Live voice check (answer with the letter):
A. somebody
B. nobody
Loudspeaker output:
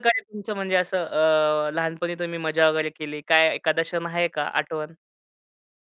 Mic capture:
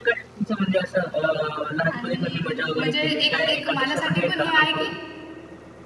A